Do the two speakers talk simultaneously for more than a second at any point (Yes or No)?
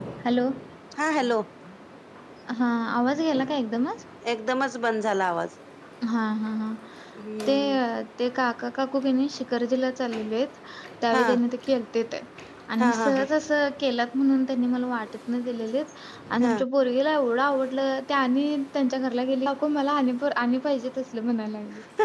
No